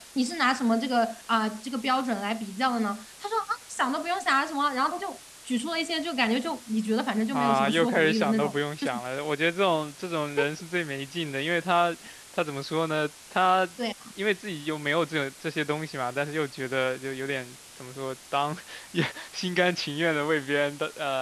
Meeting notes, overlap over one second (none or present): present